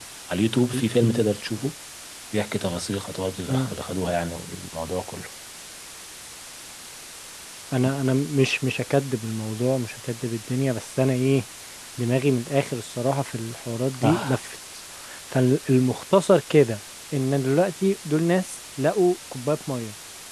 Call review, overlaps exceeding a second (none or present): none